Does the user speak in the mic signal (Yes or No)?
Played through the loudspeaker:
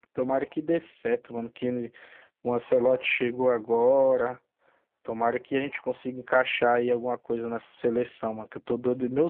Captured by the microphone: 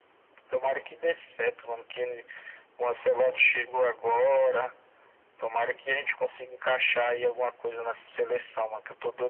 No